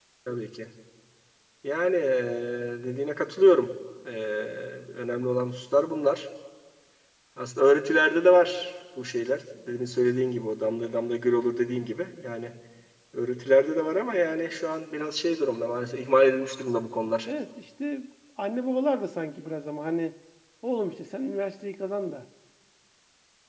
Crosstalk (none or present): none